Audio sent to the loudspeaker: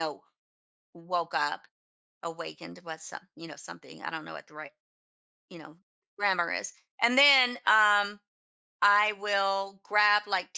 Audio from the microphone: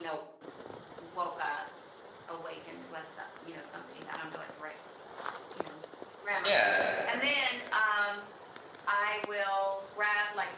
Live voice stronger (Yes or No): Yes